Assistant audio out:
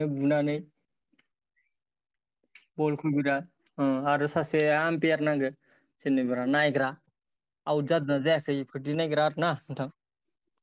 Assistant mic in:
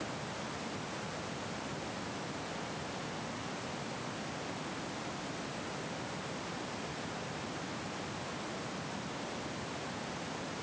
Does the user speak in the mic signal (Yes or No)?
No